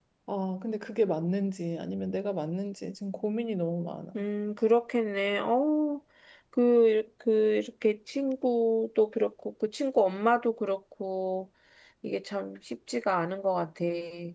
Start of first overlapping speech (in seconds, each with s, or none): none